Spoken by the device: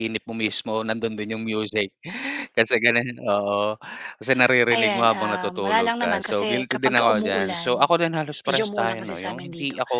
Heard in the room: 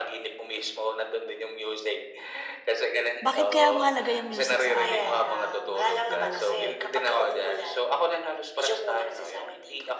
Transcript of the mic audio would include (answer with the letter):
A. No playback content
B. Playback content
B